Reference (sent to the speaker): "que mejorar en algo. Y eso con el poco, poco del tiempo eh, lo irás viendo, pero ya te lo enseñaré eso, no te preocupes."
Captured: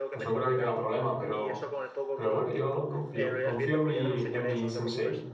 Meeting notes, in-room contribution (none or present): present